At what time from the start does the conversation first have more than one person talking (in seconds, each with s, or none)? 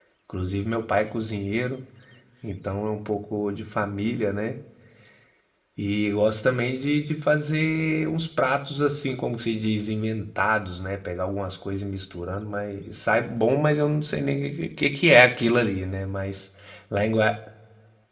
none